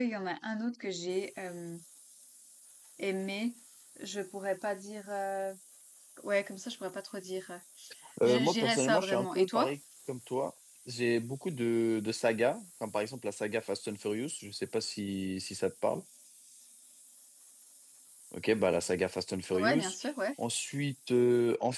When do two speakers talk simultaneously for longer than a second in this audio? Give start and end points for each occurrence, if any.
8.2-9.7

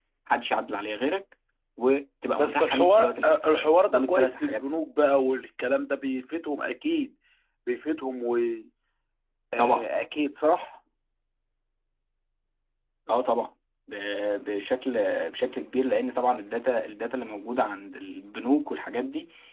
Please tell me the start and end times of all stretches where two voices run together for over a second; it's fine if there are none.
2.4-4.6

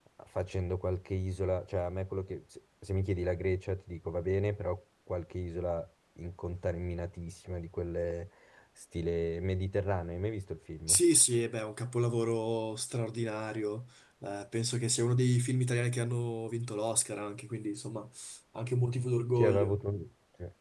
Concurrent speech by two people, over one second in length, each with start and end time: none

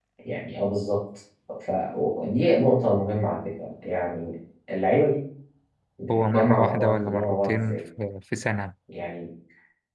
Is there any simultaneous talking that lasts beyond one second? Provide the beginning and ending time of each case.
6.1-7.8

